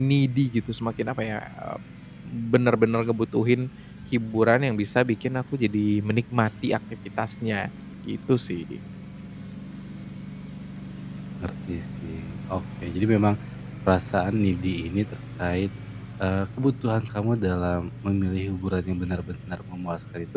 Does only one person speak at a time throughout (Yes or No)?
Yes